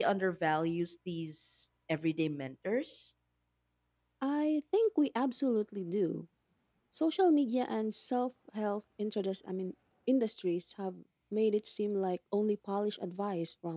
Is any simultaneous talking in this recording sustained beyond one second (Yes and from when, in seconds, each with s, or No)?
No